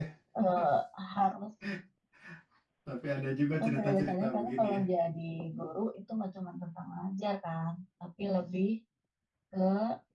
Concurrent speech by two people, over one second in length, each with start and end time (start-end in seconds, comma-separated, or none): 3.5-4.8